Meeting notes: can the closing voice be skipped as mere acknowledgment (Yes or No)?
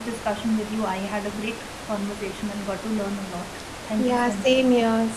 No